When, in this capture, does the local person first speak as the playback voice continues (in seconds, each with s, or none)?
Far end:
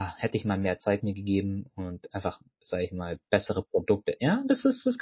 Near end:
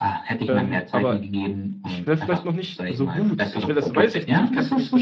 0.5 s